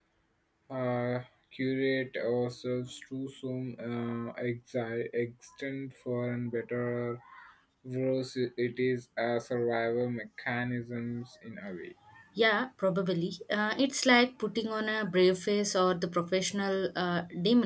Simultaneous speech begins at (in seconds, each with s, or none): none